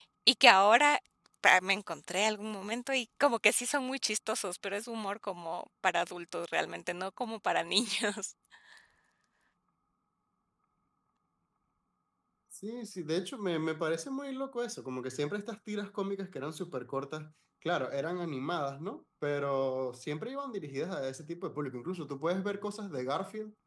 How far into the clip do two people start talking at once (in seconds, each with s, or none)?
none